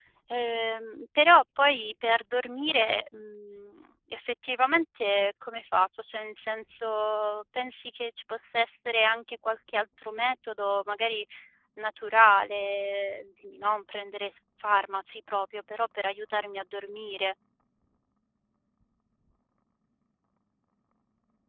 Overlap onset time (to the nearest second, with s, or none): none